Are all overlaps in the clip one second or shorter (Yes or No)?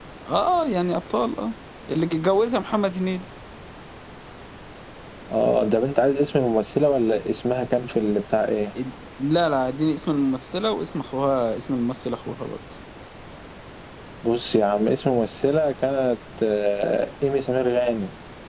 Yes